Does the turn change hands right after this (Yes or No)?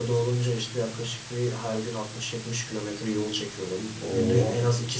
No